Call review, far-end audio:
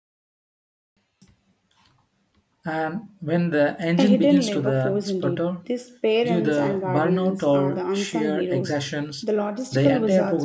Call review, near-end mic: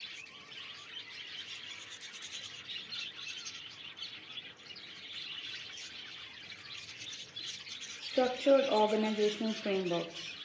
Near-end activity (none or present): present